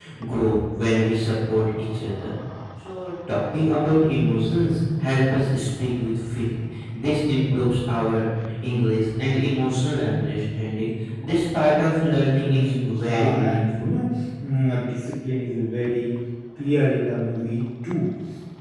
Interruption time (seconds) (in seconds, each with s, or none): 12.4 s